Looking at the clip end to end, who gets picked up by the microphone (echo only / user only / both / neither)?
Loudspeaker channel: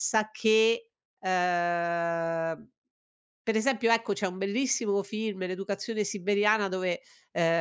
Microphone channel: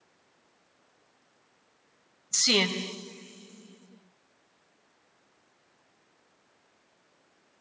user only